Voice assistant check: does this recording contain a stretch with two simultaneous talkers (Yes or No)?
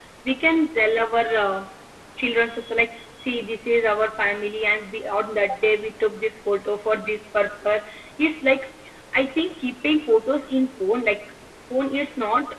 No